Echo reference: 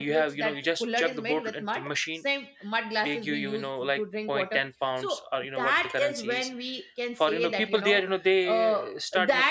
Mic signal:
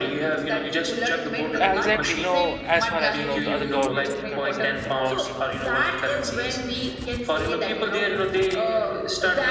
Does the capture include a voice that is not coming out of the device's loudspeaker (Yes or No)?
Yes